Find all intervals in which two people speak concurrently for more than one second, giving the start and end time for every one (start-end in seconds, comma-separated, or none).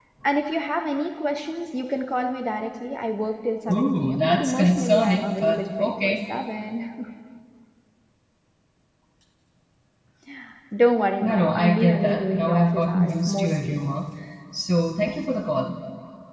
3.7-6.2, 11.2-13.8